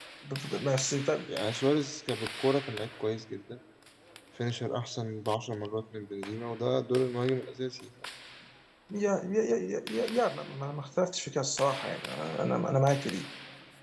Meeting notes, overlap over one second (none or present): none